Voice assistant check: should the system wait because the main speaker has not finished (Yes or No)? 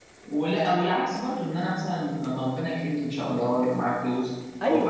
Yes